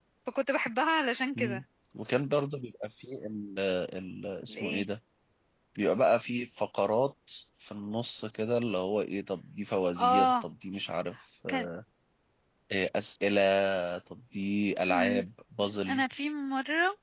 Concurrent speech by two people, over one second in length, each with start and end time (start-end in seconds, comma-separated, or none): none